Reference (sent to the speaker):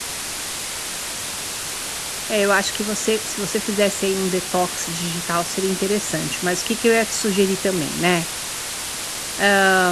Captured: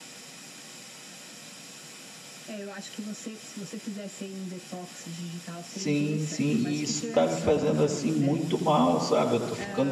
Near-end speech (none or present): present